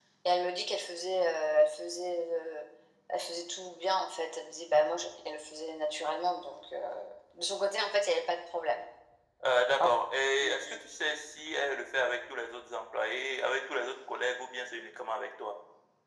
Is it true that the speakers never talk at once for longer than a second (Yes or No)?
Yes